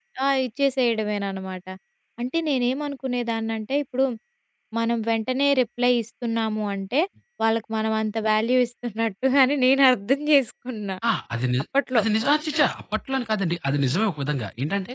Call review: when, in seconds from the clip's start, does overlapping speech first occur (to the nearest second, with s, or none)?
none